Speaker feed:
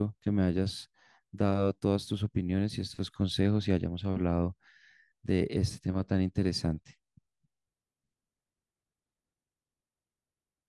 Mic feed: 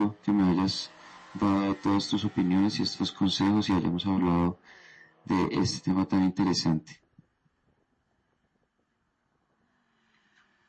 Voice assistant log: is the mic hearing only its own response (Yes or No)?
Yes